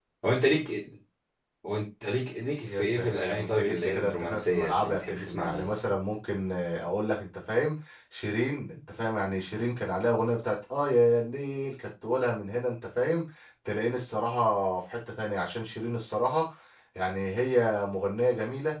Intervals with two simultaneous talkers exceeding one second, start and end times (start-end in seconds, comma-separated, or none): 2.6-5.7